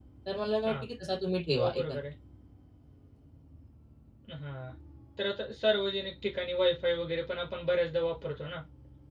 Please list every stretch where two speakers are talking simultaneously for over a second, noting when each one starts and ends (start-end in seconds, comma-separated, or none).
none